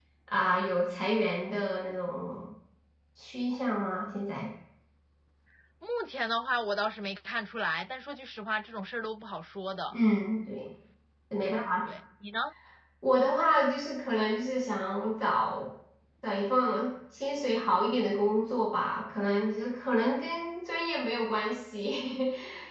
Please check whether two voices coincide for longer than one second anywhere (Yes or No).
No